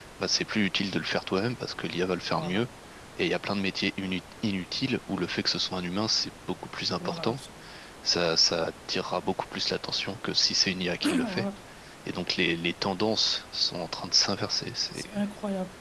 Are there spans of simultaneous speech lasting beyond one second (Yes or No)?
No